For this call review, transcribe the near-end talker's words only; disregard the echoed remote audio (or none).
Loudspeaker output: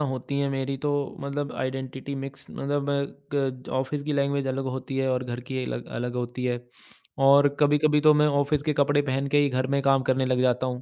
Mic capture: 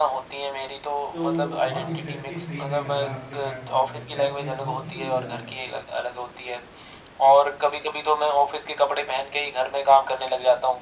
तो बहुत इंटरेस्टिंग सही में लगा आपके साथ बात करके आपने बहुत ही अ,